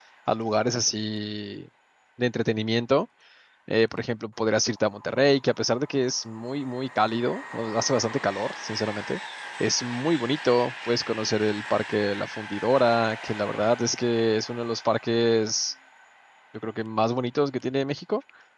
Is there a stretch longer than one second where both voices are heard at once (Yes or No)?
No